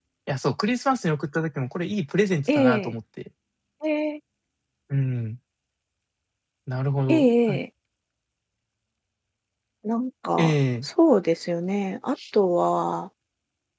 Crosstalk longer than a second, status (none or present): none